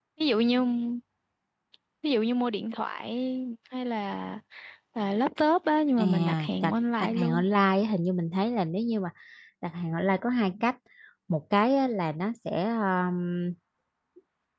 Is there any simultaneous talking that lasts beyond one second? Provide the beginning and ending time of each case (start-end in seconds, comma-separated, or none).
6.0-7.4